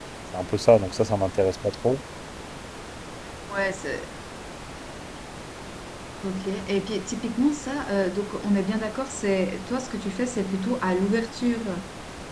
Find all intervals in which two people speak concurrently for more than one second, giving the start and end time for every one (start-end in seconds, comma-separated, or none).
none